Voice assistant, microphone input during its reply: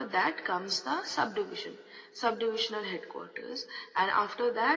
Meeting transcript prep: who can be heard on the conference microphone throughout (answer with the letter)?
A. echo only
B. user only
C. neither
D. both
A